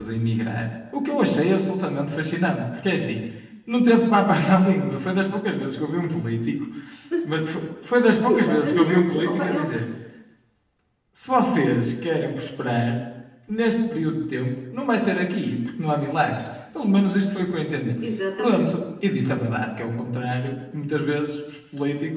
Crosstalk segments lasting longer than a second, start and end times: 8.3-9.7

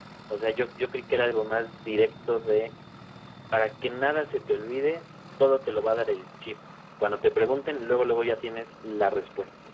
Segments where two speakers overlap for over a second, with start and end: none

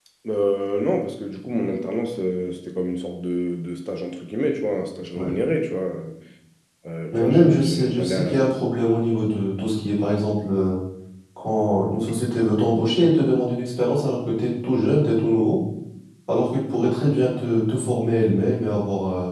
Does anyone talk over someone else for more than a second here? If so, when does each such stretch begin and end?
7.1-8.3

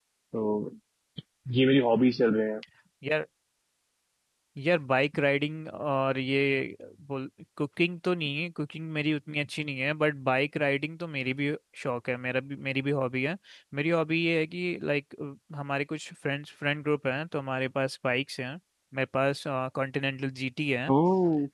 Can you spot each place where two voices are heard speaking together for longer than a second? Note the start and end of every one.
none

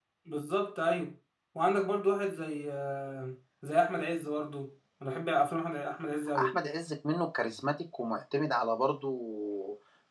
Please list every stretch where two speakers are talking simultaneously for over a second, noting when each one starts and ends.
none

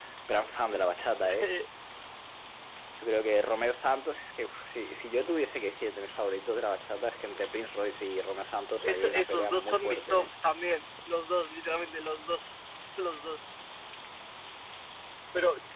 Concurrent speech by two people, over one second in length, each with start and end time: 8.8-10.3

